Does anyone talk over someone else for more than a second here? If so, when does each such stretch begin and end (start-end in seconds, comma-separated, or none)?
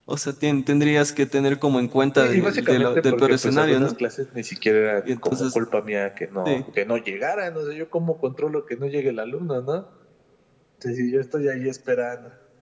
2.2-3.9